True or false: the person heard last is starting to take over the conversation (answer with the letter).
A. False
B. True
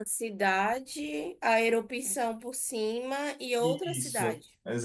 B